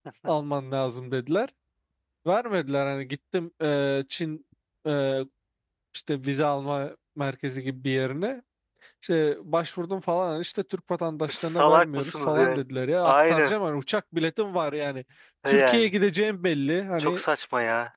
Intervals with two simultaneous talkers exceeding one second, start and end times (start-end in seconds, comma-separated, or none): 11.3-12.6